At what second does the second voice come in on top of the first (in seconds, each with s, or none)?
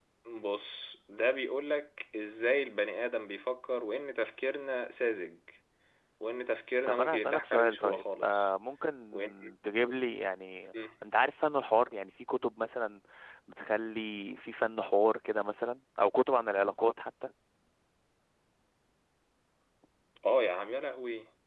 6.9 s